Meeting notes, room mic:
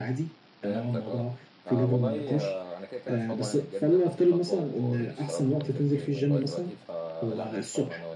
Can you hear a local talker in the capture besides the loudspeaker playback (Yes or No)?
Yes